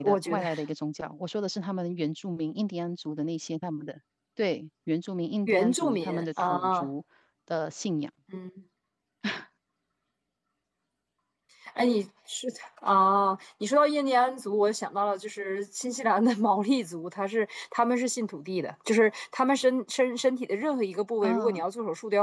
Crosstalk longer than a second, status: present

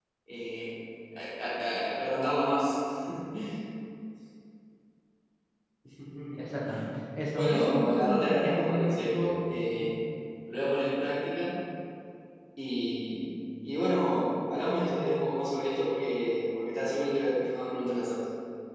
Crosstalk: present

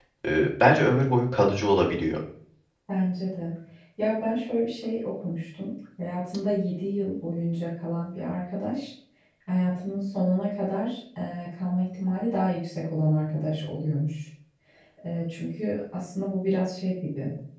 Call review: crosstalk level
none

